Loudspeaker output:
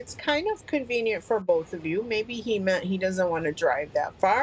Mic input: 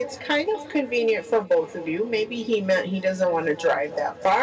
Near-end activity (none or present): none